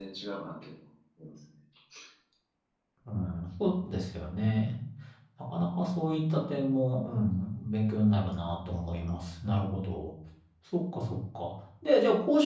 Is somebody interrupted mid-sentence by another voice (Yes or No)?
No